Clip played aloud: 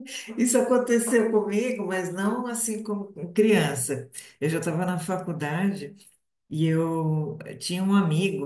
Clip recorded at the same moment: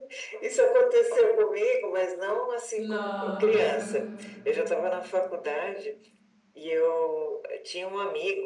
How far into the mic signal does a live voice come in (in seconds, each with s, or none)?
2.8 s